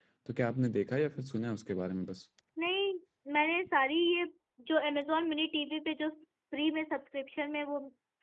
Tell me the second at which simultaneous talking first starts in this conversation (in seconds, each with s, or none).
none